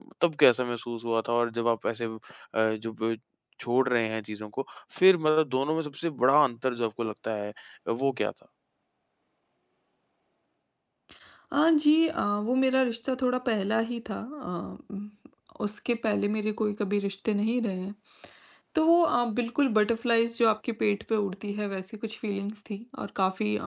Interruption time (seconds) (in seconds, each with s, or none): none